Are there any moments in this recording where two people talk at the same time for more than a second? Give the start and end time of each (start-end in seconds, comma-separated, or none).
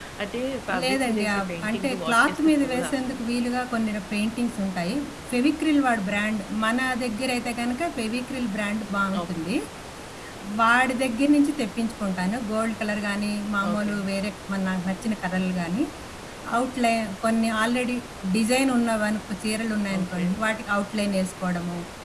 0.8-3.2